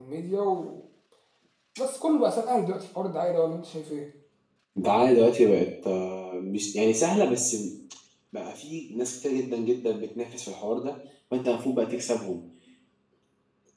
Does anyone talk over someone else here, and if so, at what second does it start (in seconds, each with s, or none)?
none